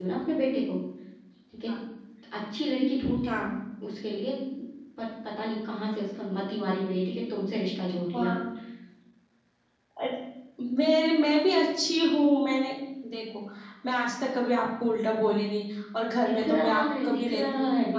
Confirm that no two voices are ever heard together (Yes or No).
No